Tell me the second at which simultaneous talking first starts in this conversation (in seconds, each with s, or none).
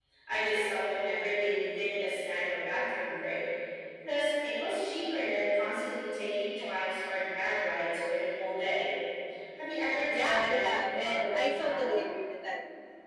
10.1 s